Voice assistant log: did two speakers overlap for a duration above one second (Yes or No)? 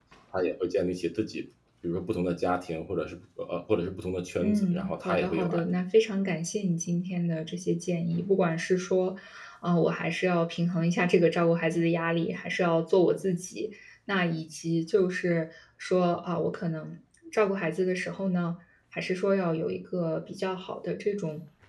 Yes